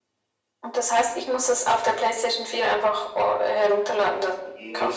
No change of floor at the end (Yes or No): No